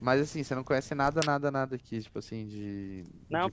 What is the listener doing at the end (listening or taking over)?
taking over